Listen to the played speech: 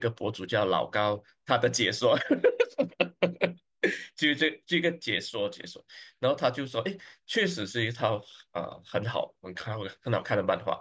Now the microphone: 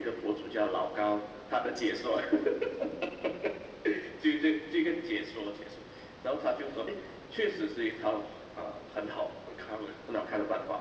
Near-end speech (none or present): none